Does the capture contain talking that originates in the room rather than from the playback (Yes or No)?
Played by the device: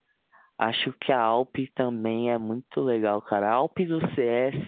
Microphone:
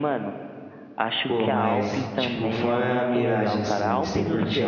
Yes